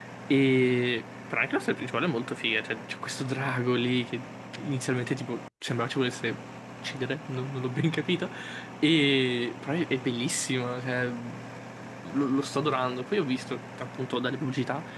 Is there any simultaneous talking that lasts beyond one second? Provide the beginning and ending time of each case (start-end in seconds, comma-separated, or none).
none